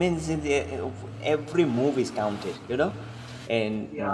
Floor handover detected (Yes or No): No